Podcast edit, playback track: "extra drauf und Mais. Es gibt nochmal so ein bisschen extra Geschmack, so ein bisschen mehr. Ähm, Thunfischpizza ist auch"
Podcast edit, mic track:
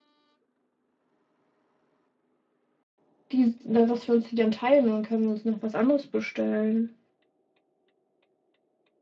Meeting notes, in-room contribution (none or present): present